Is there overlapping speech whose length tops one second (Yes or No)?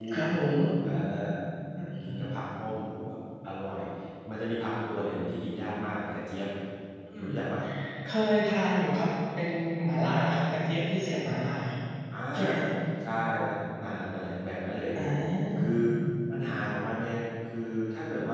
No